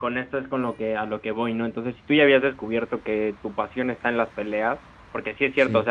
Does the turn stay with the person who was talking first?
Yes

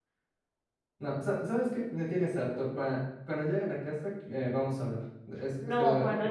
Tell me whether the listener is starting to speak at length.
Yes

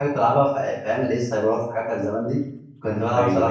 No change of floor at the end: Yes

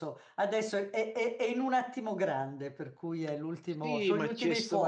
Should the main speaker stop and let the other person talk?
Yes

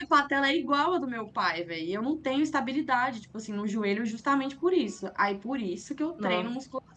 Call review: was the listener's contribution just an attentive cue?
Yes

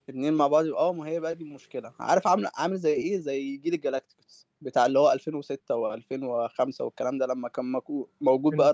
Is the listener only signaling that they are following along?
No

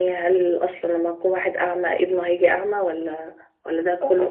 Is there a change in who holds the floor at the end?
Yes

